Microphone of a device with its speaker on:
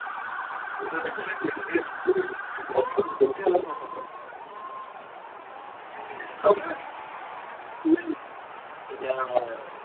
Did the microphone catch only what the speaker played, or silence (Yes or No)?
Yes